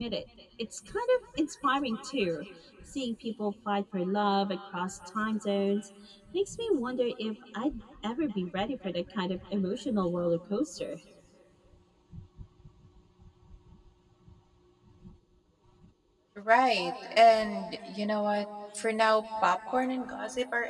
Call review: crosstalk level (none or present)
none